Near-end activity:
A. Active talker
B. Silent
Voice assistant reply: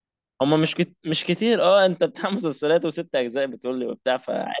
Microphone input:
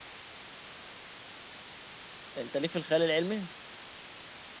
A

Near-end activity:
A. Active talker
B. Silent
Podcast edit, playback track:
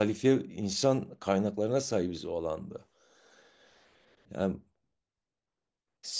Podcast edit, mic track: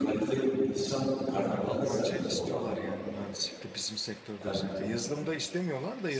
A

